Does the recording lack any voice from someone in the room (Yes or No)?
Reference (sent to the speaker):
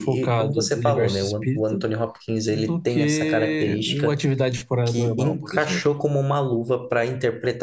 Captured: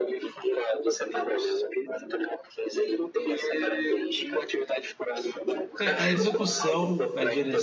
No